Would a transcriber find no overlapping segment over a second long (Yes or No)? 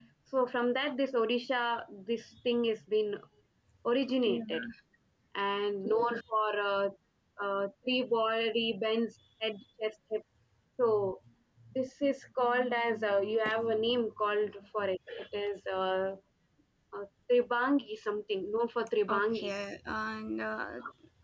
Yes